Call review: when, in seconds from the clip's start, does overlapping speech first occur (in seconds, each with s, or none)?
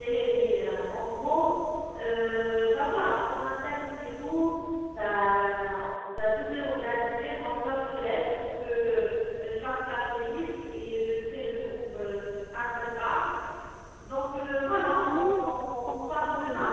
15.0 s